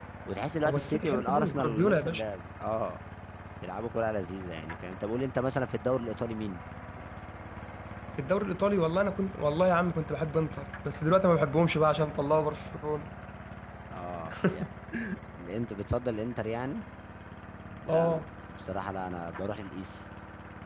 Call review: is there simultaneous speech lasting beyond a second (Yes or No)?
Yes